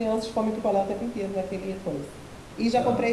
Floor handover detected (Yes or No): No